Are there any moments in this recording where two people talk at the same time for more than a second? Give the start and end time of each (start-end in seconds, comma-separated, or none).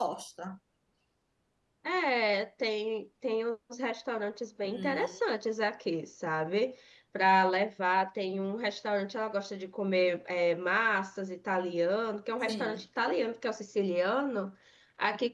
none